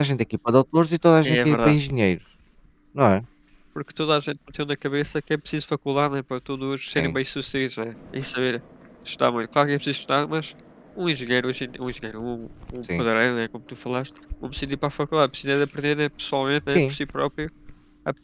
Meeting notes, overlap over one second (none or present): none